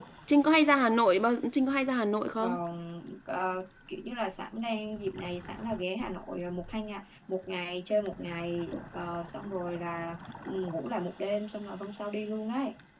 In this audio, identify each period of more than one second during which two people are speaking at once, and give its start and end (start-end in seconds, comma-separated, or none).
none